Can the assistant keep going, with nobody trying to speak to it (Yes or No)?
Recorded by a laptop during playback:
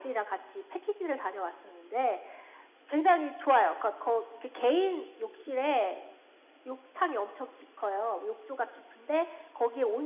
Yes